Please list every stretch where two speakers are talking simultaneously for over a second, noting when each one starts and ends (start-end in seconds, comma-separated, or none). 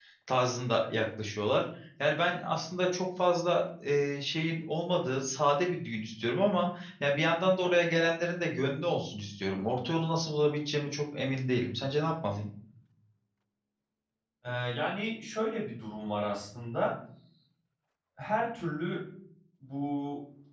none